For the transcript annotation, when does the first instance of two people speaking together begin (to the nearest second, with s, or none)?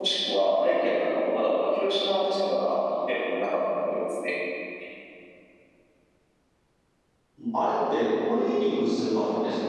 none